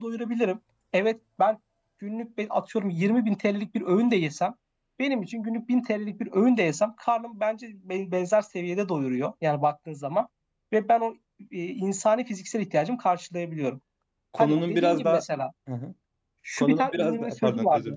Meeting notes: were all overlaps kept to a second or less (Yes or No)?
No